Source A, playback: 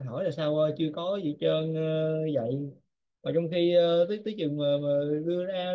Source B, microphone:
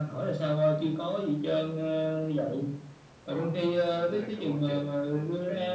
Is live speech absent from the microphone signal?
No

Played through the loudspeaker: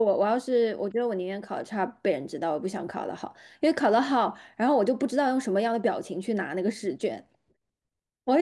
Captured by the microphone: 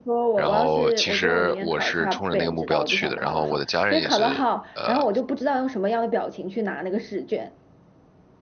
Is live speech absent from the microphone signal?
No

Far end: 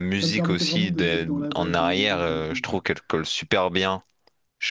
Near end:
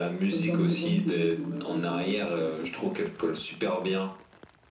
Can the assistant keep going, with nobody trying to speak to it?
Yes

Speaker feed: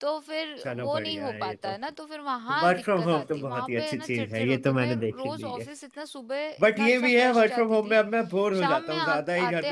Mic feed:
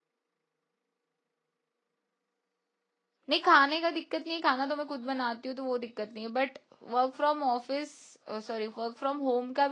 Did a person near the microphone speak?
Yes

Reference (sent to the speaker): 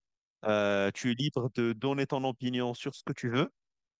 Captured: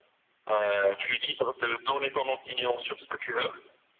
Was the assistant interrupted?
No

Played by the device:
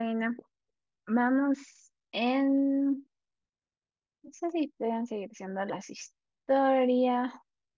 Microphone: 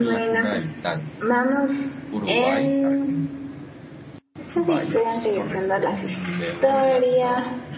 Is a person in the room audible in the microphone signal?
Yes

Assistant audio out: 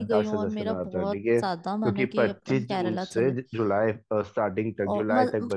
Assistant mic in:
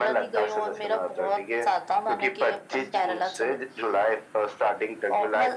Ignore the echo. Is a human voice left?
No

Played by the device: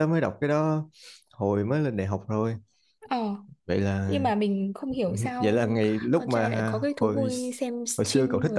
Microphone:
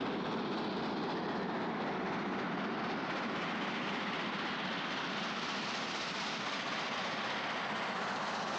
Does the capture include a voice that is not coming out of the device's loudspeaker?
No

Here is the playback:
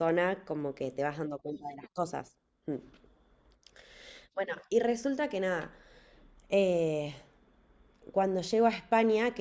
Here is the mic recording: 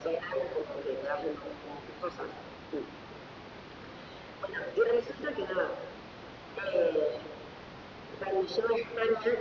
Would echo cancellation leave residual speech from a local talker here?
No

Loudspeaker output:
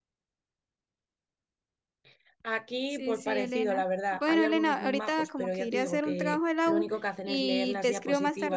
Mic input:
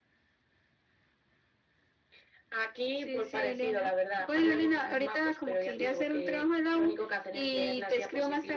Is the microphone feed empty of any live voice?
Yes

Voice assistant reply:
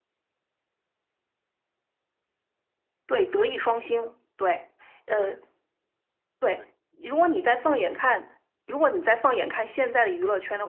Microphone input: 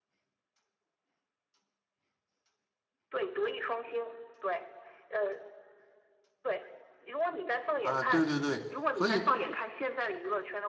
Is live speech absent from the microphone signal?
No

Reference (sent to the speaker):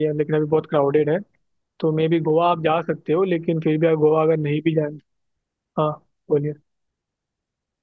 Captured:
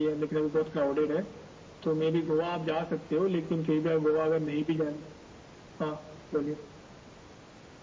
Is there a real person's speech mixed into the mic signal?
No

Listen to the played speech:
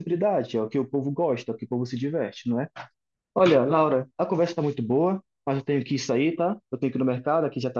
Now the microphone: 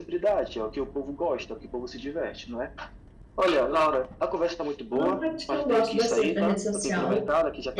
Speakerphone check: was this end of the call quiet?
No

